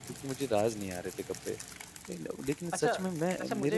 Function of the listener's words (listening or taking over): taking over